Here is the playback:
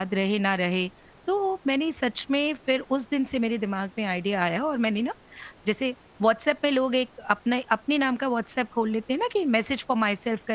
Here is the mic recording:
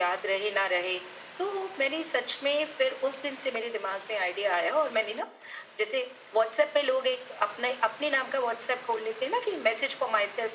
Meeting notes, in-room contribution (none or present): none